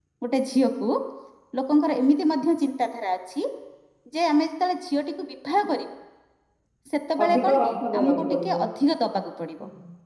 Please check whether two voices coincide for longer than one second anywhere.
Yes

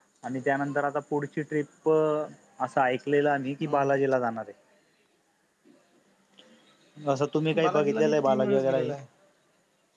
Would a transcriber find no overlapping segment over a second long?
No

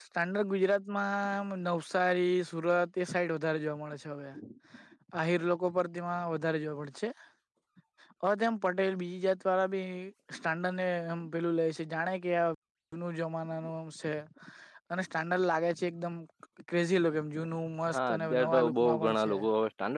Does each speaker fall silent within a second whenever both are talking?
No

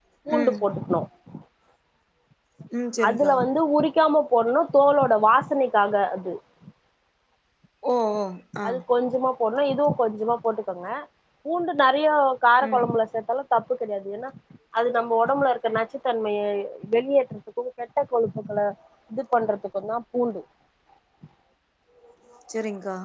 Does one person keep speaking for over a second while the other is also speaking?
No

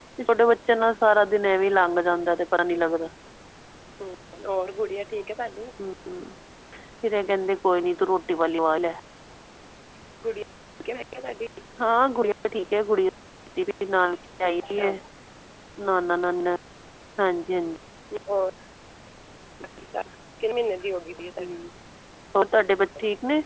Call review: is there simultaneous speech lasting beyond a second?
No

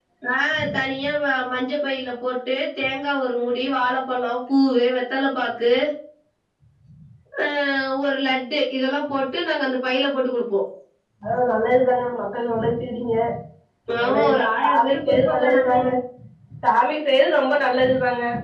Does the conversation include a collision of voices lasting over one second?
Yes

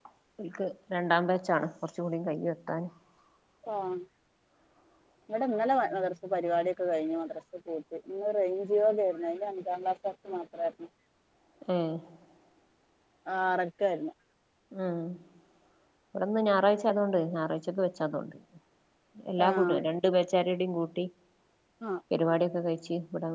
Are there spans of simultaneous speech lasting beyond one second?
No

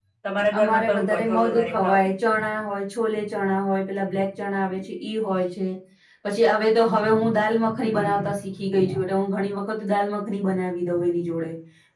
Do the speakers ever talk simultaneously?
Yes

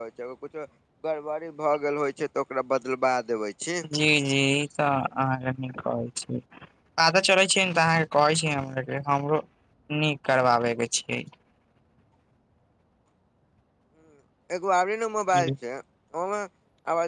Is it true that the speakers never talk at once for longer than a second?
Yes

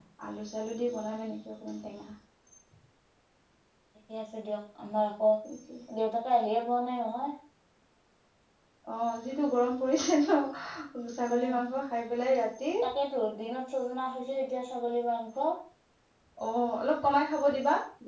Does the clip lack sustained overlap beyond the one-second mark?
Yes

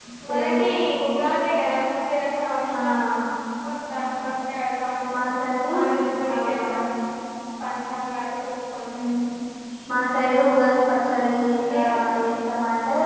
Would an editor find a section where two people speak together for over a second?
No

